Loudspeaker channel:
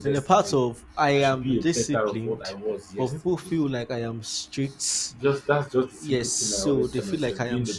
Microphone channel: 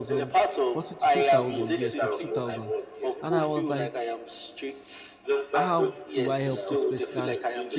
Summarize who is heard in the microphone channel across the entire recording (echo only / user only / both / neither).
both